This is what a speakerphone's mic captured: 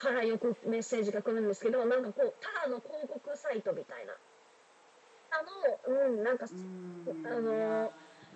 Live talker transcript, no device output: うーん、いや

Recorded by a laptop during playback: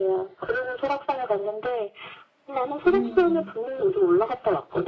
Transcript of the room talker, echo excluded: 음.

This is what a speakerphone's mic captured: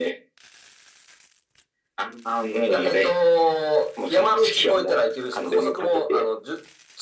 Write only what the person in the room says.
none

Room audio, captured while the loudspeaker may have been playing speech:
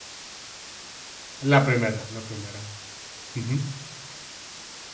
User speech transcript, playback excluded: La primera, la primera. Ujú,

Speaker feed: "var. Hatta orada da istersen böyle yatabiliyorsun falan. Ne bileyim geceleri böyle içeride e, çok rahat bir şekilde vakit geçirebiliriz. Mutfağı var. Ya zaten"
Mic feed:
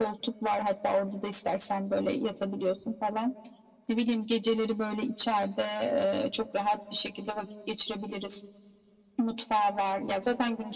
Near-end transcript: none

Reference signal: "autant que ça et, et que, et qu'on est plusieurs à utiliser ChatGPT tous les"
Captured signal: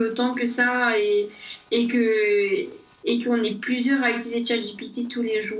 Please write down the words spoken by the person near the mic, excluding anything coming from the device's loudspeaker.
none

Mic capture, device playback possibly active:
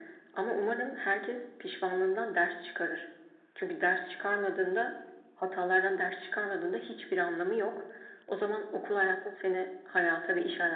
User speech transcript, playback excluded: none

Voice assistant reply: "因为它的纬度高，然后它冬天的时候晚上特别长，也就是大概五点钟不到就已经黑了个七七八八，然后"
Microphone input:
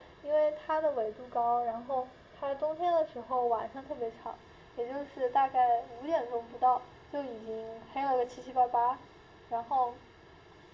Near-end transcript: none

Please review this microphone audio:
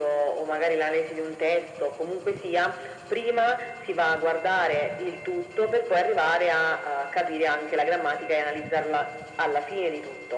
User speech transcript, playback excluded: none

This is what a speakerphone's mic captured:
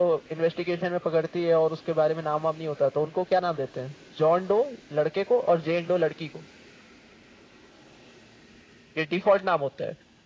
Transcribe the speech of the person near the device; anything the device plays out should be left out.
none

